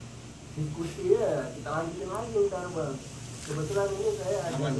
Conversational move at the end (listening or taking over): listening